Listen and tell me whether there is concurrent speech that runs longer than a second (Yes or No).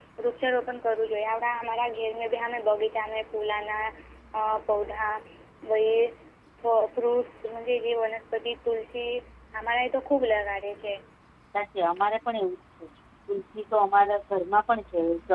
No